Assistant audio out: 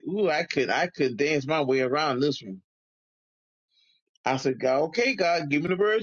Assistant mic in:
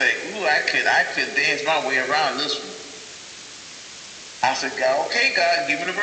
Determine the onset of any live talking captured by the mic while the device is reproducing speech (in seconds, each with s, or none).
none